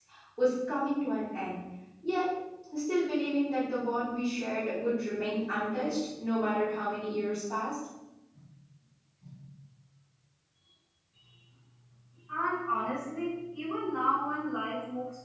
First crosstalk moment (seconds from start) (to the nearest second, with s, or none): none